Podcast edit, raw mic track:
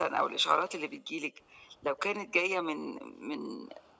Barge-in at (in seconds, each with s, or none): none